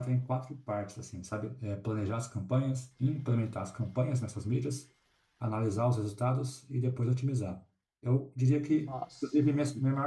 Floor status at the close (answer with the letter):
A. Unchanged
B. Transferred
A